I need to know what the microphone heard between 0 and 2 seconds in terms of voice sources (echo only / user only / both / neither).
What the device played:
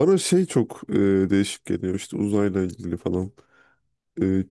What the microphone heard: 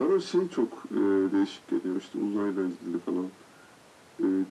echo only